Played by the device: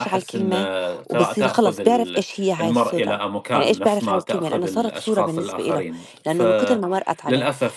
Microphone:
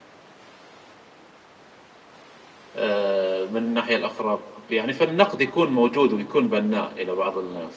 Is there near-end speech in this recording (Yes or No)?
Yes